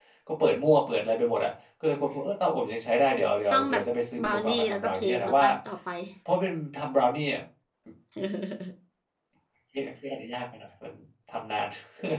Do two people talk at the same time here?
Yes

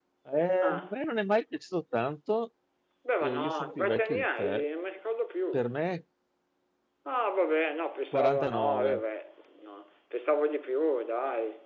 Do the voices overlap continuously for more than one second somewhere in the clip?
Yes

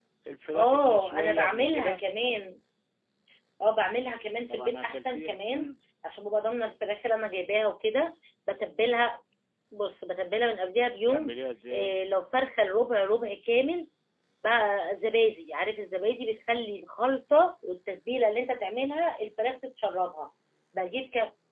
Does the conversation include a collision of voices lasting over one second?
Yes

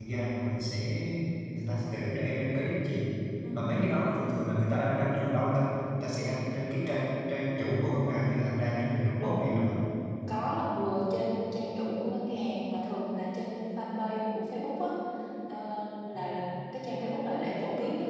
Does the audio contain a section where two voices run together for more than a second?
No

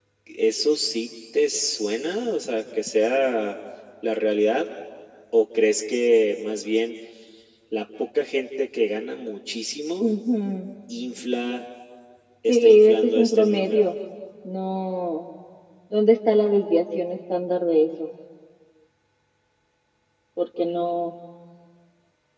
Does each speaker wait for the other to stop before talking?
No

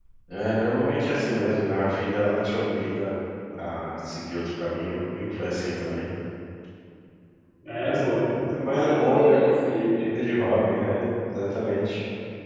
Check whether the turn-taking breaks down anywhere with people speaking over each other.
Yes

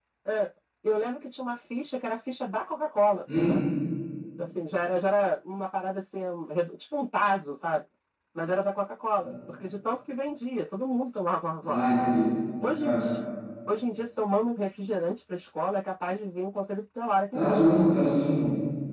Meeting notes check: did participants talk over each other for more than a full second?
No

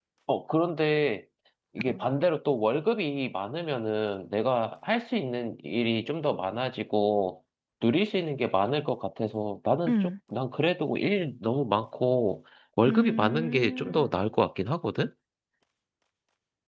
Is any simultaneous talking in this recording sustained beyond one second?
Yes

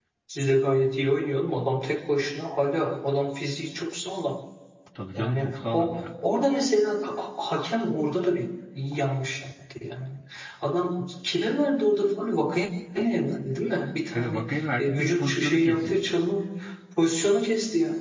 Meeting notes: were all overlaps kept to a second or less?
No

